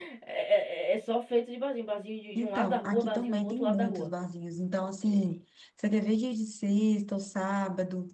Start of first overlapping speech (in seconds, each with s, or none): 2.4 s